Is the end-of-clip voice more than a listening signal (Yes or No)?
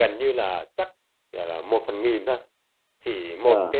No